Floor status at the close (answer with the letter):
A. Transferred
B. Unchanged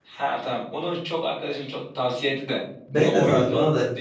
A